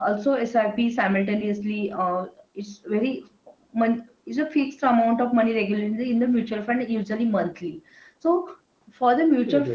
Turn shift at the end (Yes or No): No